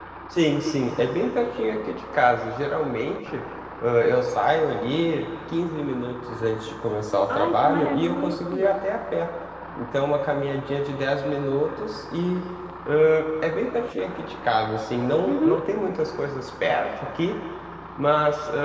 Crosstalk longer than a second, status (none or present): present